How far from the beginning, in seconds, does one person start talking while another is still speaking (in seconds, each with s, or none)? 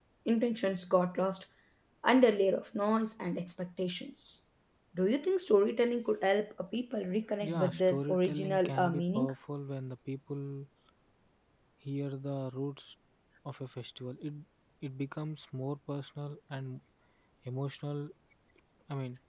7.4 s